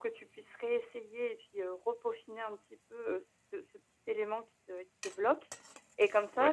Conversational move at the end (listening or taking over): listening